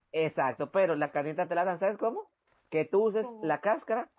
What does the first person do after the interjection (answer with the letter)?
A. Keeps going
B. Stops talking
A